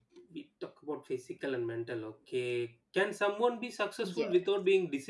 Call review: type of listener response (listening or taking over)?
listening